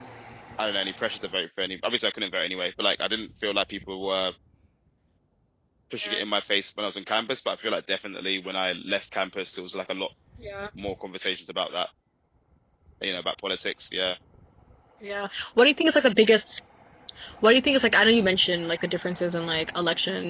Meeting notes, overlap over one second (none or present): none